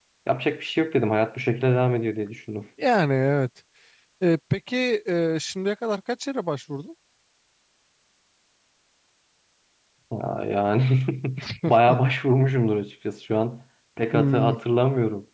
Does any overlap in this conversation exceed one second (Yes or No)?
No